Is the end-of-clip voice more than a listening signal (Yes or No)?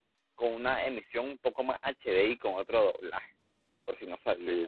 Yes